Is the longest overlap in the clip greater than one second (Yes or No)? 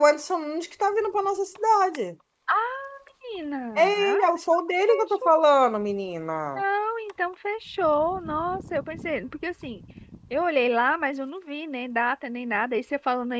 No